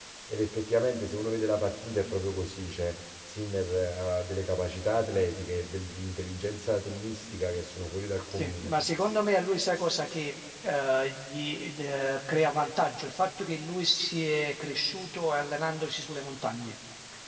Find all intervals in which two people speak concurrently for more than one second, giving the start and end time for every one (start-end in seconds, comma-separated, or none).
none